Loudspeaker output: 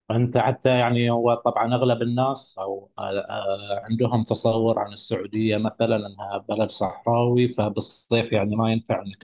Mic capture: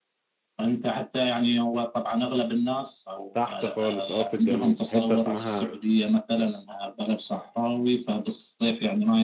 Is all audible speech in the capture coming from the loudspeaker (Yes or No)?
No